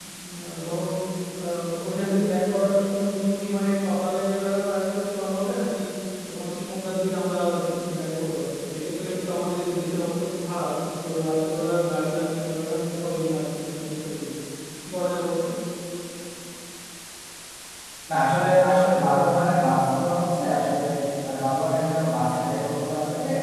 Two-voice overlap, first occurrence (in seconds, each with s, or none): none